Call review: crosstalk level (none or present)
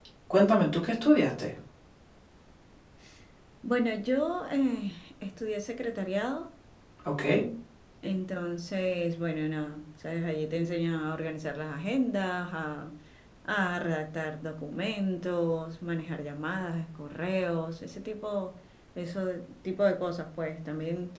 none